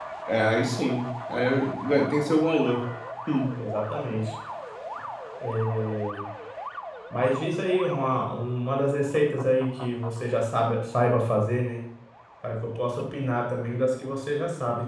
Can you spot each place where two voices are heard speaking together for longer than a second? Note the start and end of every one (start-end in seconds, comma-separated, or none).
none